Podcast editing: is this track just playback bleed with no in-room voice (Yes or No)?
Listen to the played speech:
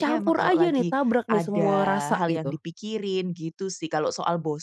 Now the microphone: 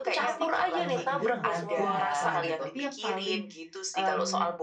No